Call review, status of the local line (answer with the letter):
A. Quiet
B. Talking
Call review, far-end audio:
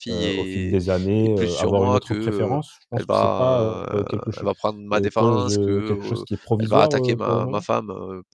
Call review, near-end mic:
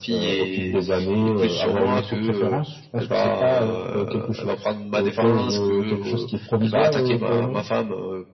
A